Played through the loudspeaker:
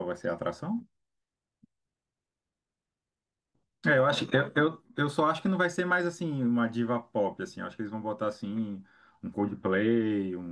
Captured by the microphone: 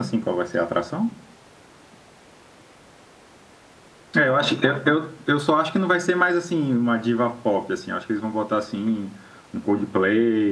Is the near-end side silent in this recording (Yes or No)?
Yes